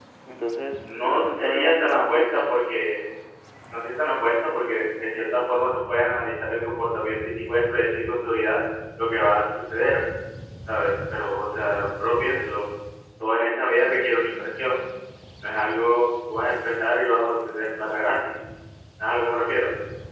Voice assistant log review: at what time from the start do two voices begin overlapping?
0.8 s

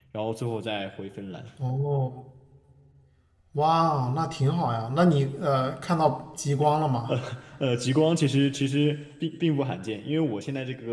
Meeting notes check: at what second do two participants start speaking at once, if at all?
none

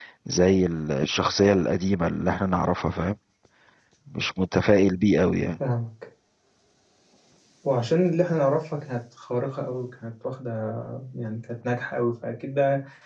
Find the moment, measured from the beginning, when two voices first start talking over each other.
none

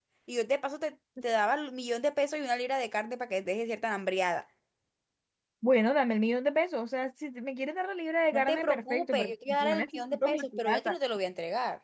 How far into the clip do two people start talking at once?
8.3 s

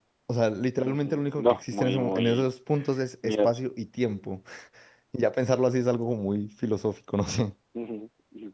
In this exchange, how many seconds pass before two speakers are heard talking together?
0.8 s

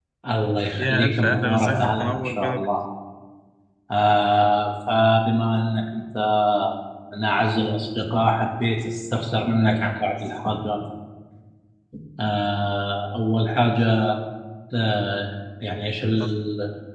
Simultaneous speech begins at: 0.7 s

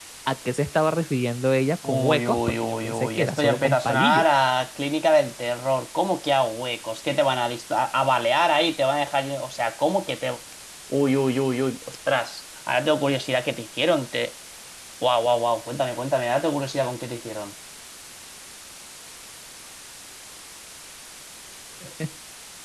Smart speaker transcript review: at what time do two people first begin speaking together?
1.8 s

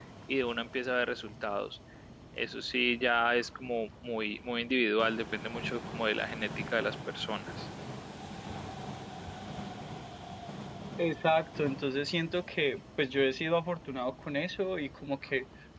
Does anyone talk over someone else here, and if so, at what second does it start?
none

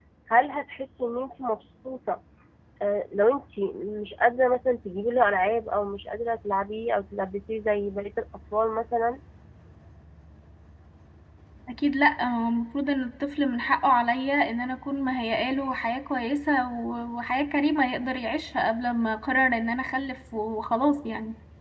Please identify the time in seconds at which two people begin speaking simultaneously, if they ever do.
none

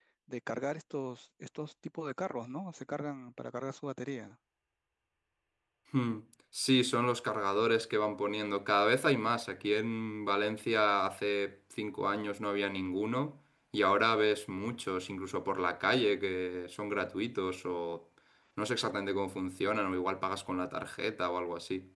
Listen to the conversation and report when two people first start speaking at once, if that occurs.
none

